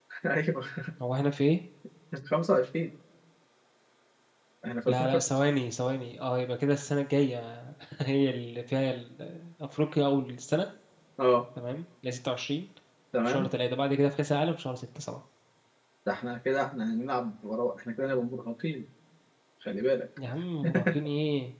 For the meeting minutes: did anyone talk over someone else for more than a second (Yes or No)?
No